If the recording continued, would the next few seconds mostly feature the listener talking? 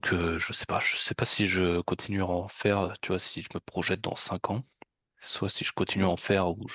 No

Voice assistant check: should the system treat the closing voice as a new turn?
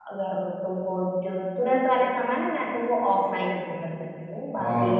Yes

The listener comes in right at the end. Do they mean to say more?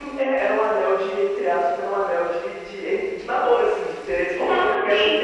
Yes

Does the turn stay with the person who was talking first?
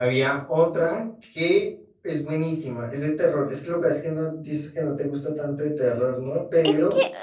No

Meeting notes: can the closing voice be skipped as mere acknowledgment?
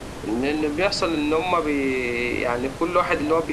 Yes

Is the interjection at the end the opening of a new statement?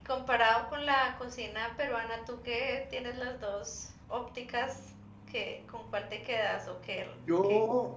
Yes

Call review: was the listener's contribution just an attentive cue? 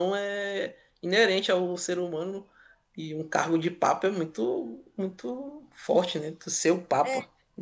No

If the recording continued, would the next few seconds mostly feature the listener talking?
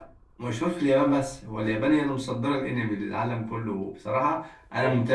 No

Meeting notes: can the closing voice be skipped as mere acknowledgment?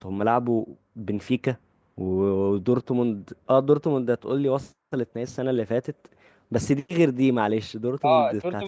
No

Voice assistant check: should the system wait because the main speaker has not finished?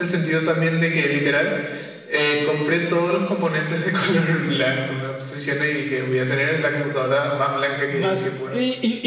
No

